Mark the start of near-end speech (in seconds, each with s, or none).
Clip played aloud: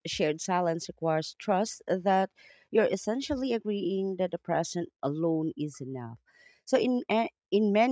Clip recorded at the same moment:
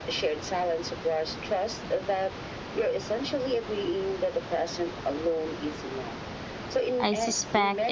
7.0 s